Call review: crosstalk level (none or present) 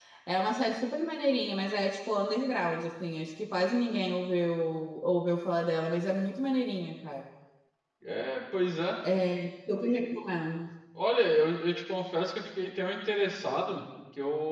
none